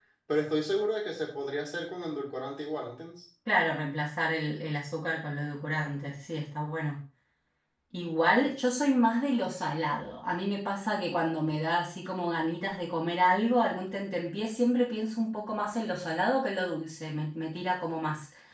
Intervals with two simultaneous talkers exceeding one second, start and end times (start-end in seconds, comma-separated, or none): none